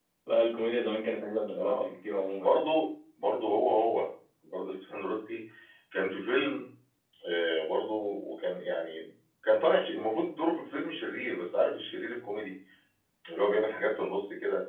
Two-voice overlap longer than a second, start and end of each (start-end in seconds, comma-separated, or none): none